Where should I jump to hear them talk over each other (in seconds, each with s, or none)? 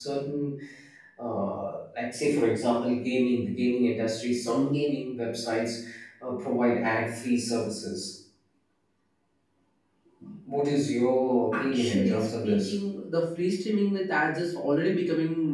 11.5 s